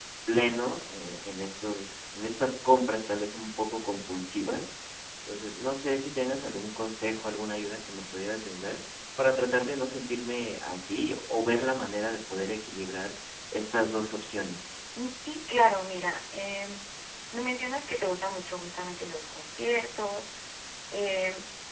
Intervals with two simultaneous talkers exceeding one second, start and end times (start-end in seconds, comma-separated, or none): none